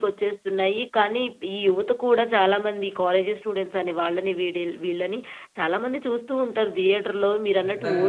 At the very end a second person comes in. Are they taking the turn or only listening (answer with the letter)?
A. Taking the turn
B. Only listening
A